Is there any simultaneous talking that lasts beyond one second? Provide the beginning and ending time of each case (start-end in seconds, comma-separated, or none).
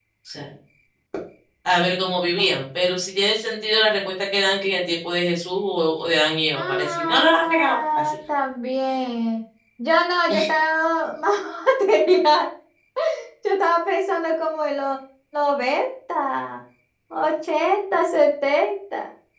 6.5-8.2